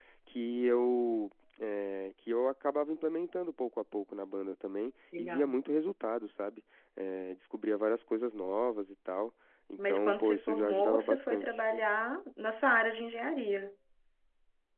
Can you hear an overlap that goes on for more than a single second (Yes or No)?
Yes